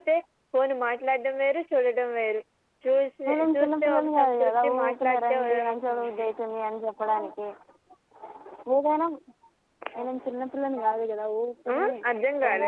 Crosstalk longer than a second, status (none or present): present